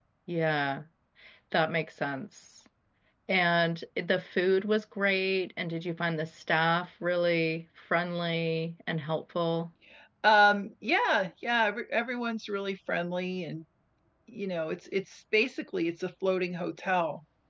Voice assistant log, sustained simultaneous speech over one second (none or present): none